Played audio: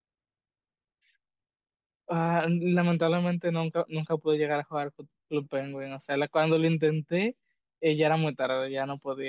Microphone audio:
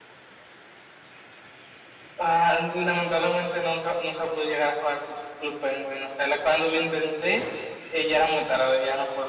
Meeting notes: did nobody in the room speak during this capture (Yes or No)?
Yes